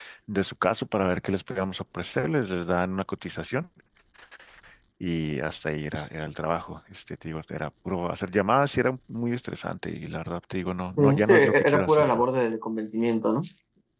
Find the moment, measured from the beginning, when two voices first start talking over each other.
11.0 s

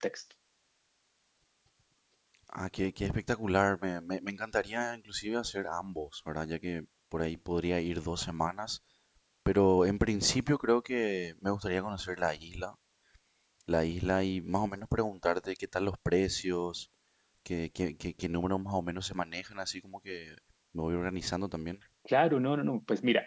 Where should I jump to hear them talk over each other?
none

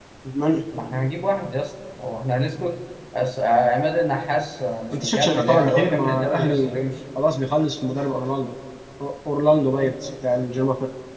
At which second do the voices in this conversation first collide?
4.9 s

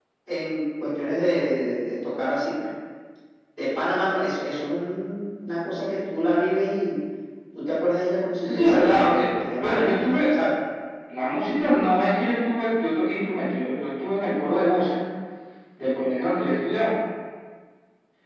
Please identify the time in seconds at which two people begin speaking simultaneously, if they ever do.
8.4 s

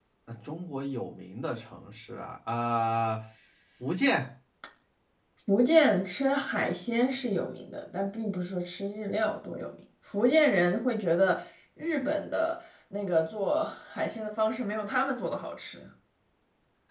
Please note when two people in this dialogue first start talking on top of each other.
none

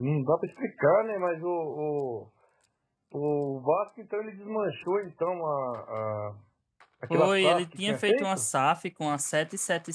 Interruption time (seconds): 7.1 s

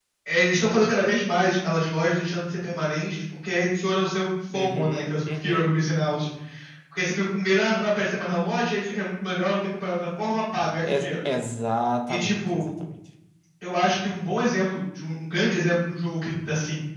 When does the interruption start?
4.5 s

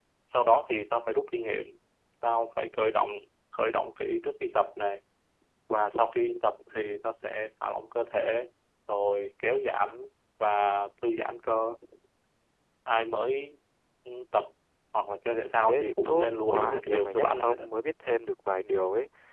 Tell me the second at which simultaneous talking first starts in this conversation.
15.7 s

